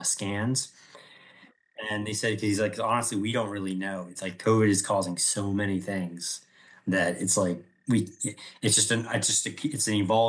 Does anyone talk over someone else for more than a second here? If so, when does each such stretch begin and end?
none

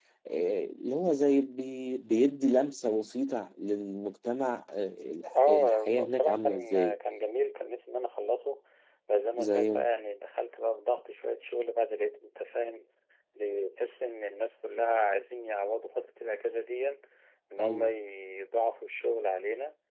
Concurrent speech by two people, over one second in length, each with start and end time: 5.3-7.0

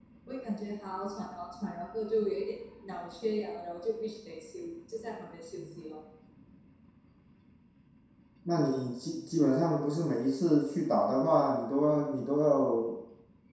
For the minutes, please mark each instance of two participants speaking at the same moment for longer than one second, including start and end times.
none

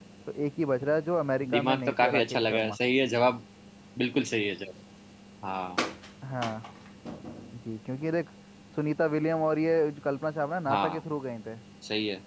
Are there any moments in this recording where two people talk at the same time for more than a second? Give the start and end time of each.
1.5-2.8

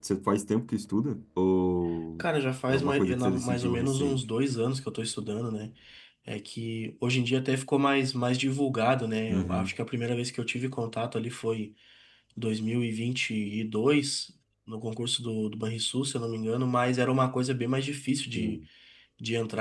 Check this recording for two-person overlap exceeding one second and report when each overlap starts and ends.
2.7-4.2

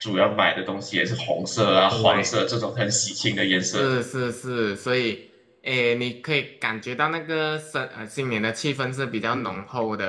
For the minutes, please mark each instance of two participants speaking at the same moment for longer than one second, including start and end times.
none

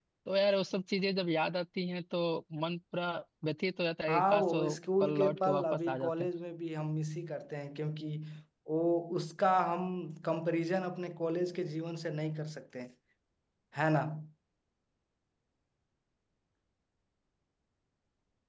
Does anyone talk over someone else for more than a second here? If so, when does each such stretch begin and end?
4.1-6.3

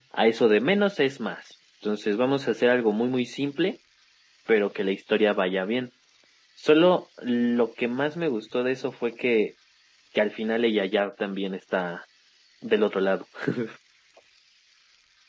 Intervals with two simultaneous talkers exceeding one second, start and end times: none

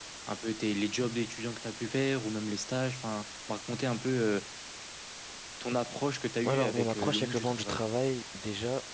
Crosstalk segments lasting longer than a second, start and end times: 6.5-7.8

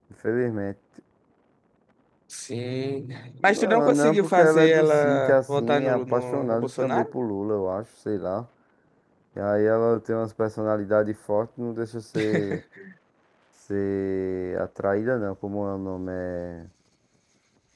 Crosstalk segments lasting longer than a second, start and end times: 3.4-7.1

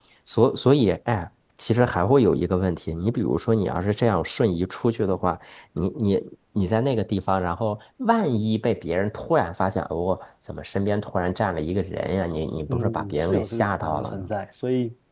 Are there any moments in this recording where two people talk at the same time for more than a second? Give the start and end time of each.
12.7-14.3

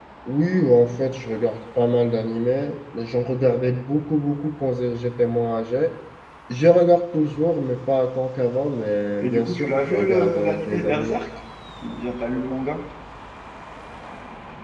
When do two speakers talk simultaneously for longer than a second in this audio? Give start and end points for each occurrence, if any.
9.2-11.2

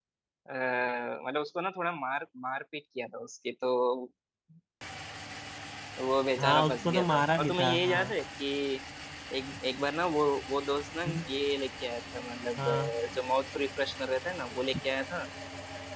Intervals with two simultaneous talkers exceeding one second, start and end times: 6.4-8.1

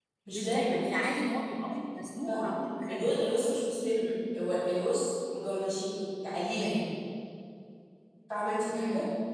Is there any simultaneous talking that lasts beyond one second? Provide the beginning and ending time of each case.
none

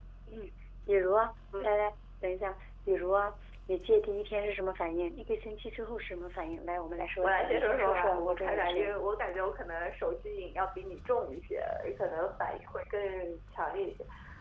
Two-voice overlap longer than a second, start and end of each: 7.2-9.0

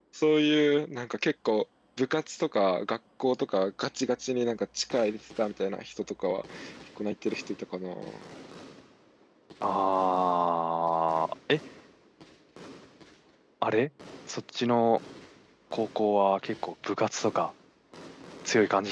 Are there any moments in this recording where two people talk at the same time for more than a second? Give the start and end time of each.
none

